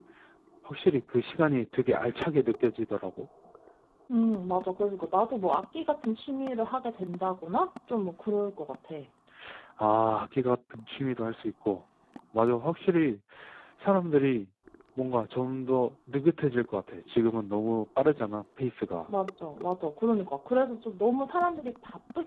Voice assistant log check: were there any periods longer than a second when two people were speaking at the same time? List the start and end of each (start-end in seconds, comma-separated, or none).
none